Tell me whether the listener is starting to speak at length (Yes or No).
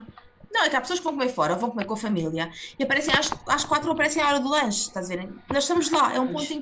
No